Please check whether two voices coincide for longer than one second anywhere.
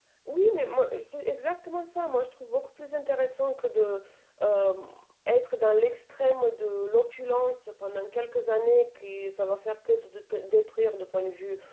No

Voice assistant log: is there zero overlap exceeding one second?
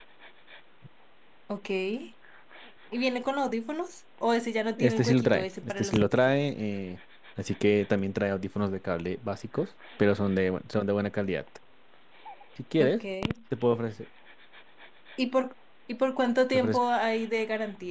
No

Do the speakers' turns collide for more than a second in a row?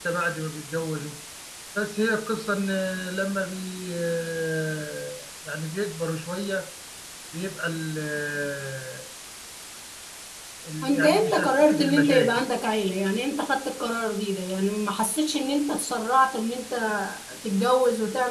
Yes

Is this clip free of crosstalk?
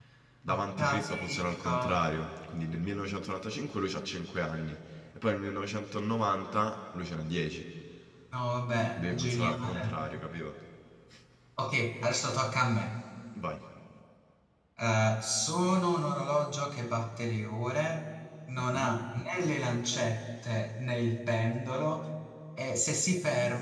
No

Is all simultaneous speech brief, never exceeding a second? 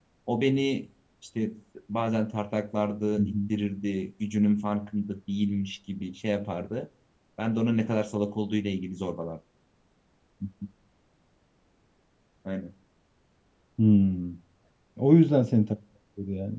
Yes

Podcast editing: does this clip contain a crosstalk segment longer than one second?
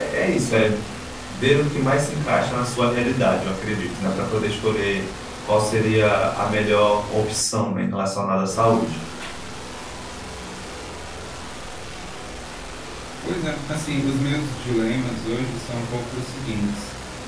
No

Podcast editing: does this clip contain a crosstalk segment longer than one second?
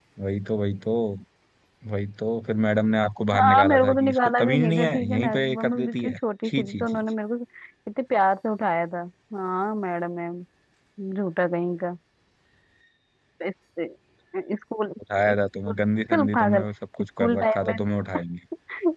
Yes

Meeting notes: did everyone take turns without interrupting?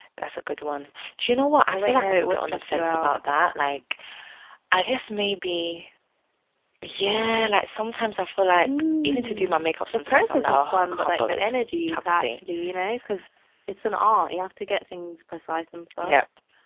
No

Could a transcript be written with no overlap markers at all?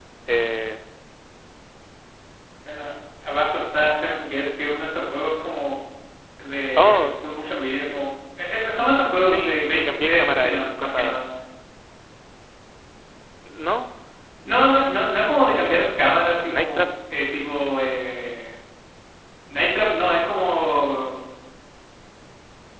No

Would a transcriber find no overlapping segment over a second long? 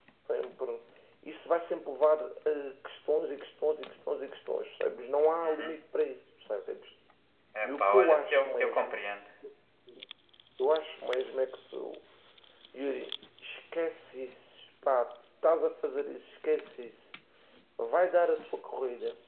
No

